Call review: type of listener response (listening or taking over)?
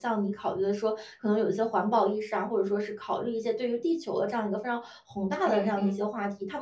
listening